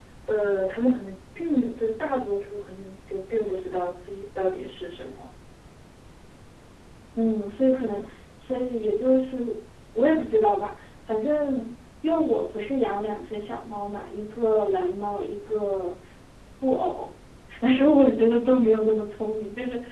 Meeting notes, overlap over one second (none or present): none